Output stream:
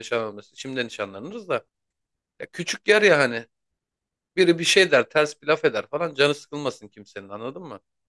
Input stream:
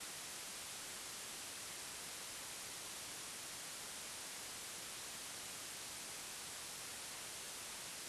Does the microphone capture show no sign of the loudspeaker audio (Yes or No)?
Yes